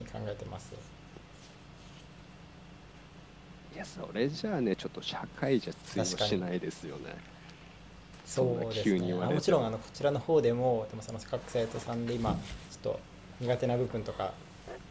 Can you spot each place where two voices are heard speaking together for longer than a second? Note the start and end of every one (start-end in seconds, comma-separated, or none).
8.3-9.7